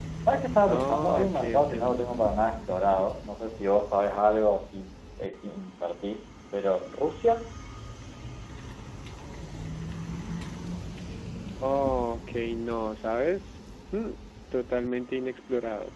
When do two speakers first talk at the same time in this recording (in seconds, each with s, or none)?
0.7 s